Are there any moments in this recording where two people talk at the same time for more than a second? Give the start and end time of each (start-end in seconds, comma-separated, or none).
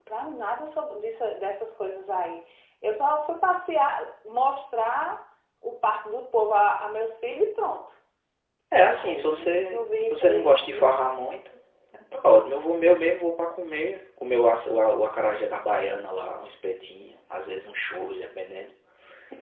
8.9-10.9